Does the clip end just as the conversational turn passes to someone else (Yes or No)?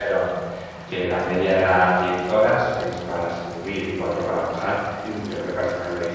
No